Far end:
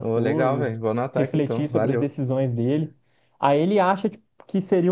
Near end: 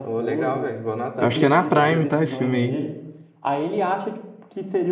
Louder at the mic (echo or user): user